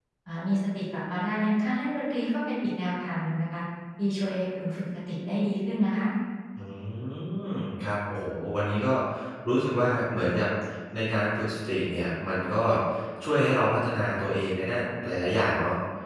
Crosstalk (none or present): none